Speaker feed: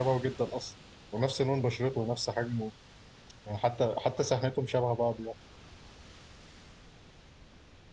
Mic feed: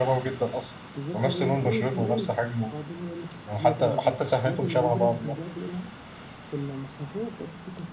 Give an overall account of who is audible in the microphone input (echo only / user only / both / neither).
both